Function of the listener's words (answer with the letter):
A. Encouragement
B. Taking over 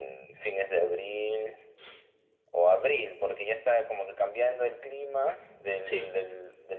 A